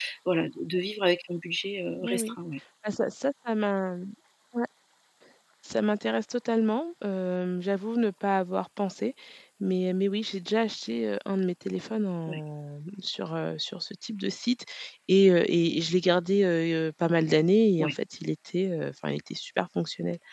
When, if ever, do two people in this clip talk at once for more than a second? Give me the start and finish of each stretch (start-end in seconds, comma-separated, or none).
none